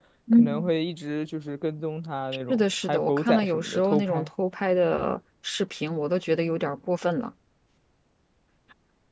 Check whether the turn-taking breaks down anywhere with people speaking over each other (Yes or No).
Yes